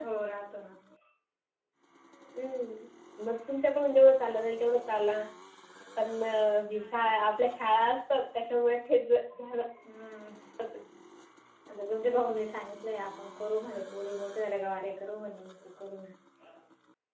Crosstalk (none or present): none